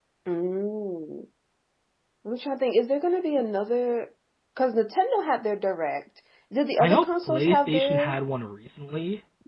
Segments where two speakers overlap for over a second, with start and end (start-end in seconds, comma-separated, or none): 6.8-8.2